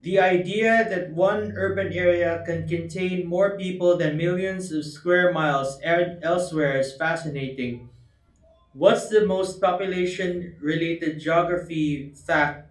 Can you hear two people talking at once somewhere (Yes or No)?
No